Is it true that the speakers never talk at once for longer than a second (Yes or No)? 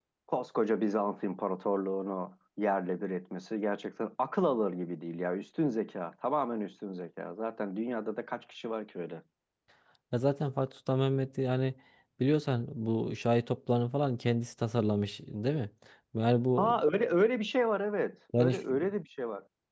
Yes